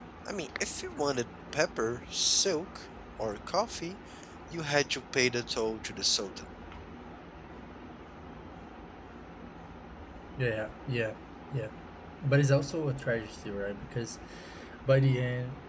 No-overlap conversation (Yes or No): Yes